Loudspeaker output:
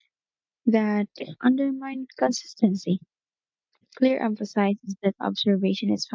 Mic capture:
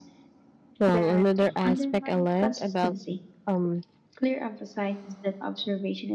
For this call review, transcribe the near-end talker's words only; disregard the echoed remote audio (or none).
Well, another aspect I love about um,